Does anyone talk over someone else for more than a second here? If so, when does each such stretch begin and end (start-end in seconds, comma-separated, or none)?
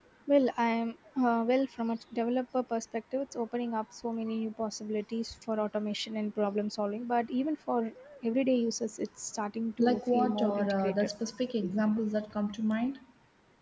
9.8-11.1